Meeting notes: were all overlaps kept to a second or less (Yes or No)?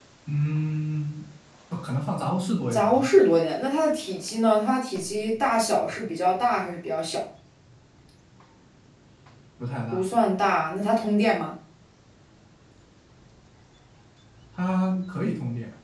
Yes